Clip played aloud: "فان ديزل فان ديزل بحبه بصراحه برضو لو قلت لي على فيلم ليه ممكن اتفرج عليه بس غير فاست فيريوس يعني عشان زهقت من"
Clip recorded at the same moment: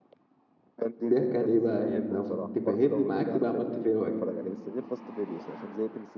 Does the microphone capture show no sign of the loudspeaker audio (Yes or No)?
No